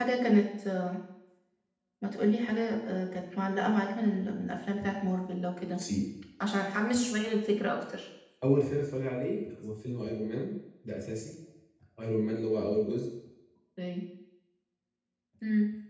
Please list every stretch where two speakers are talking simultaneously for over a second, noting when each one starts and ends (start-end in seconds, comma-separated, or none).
none